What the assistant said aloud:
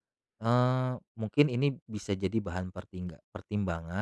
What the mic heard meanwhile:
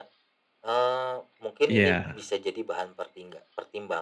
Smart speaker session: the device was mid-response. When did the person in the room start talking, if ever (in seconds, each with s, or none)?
1.7 s